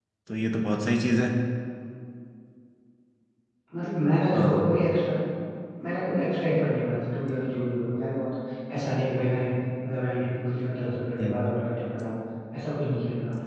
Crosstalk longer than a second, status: none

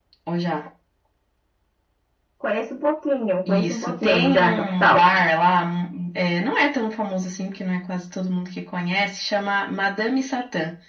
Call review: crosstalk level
present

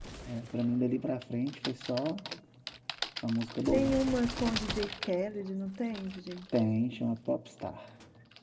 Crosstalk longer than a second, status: none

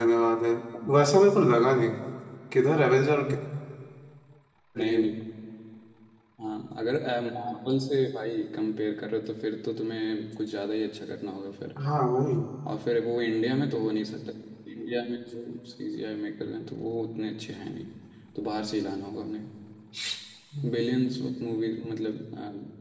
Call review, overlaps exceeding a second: none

